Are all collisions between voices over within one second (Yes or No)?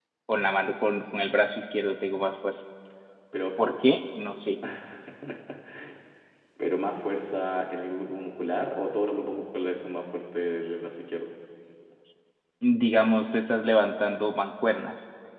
Yes